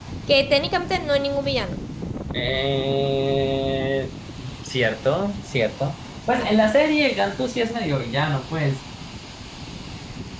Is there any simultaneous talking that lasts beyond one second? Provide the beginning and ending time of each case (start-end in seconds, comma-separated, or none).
none